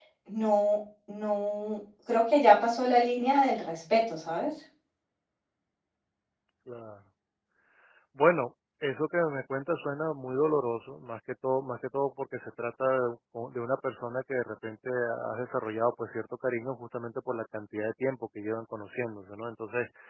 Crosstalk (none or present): none